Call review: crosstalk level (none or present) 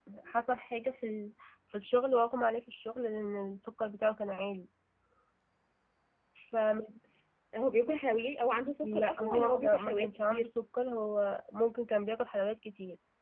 present